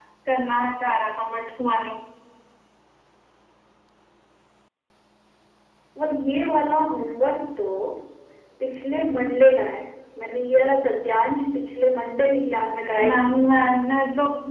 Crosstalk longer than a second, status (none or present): none